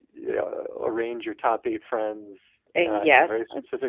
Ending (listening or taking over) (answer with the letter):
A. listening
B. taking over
A